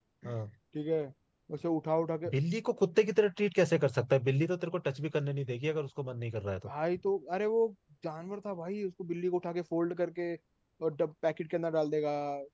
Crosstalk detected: No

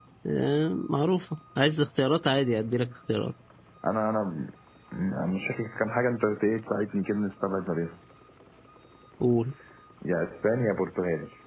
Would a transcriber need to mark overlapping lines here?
No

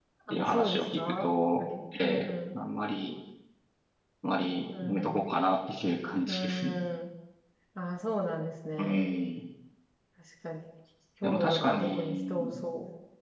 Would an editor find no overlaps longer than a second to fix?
No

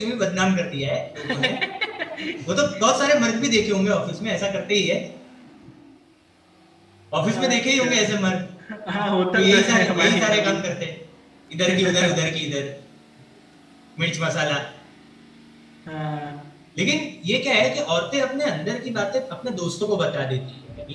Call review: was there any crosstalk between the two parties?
Yes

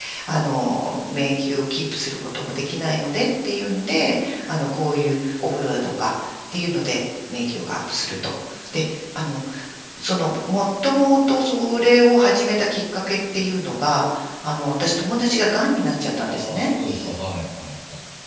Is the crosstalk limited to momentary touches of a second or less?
Yes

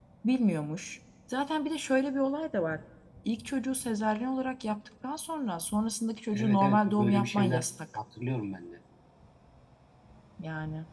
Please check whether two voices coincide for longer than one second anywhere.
Yes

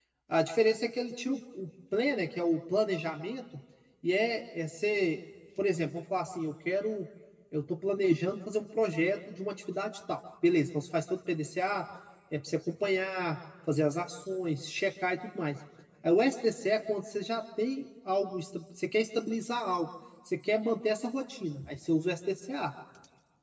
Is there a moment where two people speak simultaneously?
No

